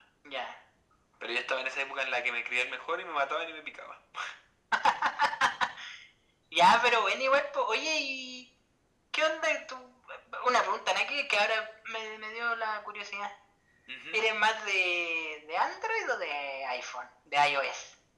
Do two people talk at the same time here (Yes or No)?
No